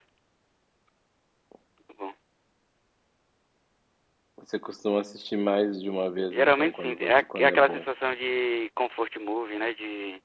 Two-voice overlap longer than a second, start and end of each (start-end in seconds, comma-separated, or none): 6.3-7.8